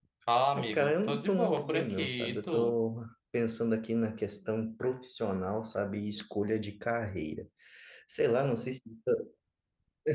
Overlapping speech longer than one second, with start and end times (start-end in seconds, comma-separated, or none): 0.6-2.8